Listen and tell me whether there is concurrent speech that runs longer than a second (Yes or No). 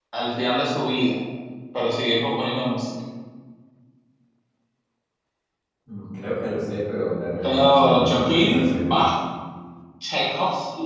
Yes